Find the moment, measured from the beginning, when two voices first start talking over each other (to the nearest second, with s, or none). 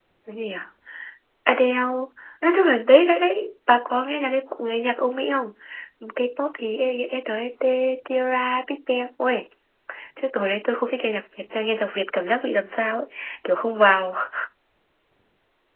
none